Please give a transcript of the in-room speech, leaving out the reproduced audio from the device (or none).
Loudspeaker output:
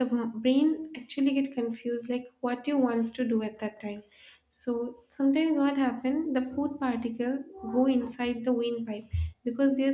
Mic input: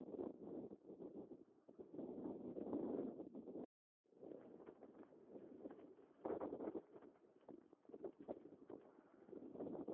none